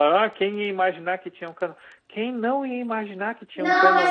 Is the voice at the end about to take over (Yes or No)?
Yes